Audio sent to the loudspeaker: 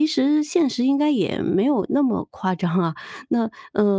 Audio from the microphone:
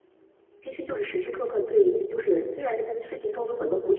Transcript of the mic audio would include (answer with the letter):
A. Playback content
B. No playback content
B